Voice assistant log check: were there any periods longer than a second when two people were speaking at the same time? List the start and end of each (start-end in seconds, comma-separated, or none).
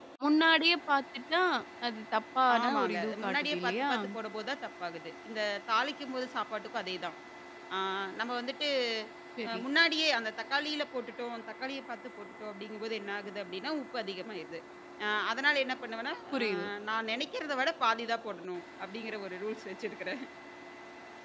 2.6-3.9